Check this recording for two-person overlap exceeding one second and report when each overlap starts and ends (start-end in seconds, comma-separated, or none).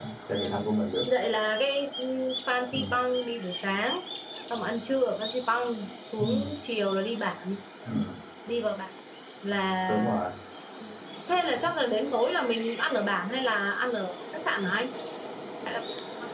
none